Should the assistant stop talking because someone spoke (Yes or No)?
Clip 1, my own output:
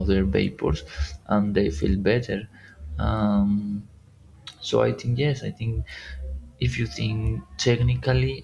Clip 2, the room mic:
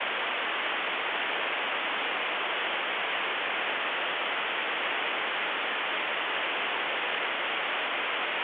No